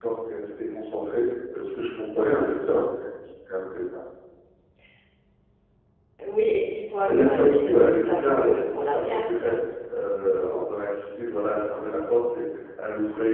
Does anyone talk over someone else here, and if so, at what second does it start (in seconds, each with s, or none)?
7.1 s